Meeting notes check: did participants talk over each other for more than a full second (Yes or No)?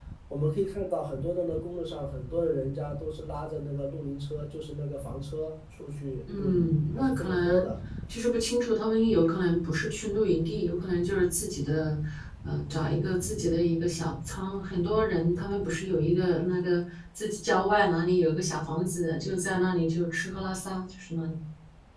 Yes